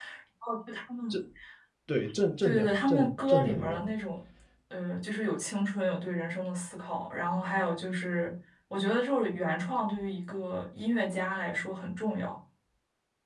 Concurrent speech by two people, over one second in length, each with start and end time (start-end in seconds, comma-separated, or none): 2.4-3.9